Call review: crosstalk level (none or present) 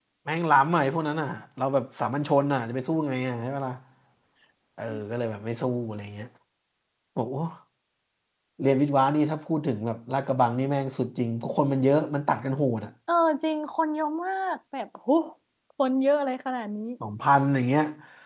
none